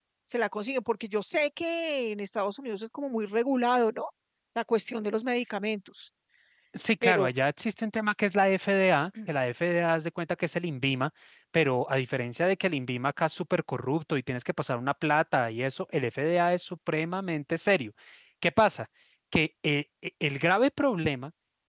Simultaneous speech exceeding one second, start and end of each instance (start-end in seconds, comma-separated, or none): none